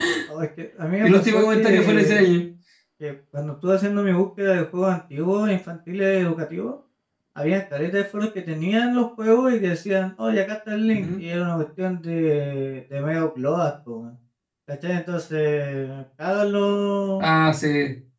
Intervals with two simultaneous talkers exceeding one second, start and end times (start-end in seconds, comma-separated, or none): 1.0-2.4